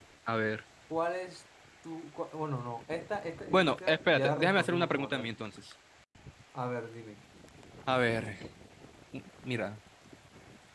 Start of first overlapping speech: 3.5 s

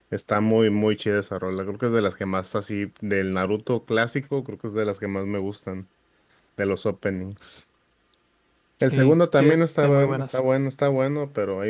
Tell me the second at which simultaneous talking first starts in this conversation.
8.8 s

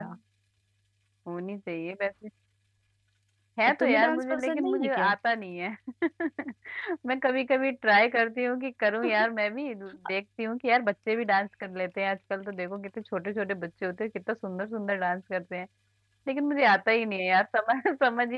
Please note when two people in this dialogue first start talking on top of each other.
3.7 s

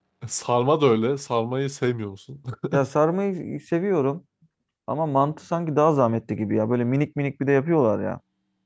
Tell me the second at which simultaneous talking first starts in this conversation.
none

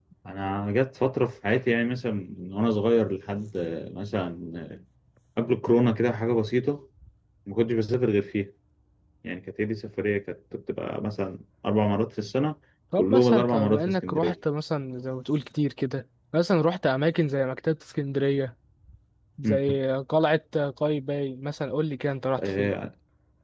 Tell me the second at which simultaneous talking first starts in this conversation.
13.0 s

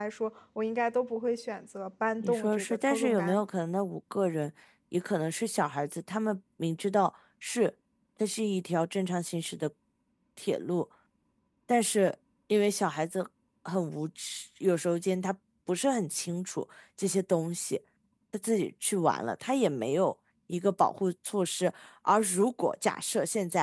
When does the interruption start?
2.2 s

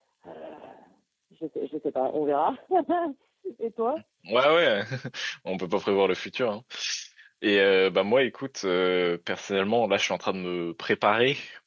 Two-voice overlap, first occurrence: none

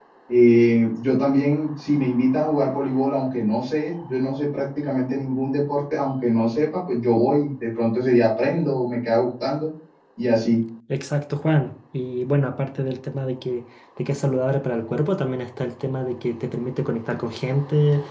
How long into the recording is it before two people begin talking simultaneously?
none

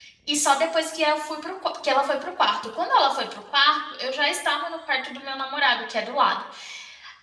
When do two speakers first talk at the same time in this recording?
none

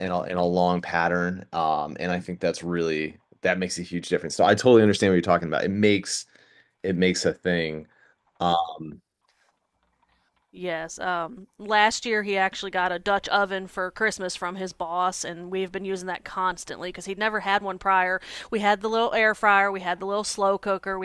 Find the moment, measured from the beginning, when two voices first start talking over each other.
none

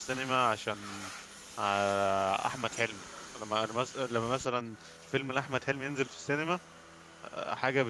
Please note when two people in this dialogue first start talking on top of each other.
none

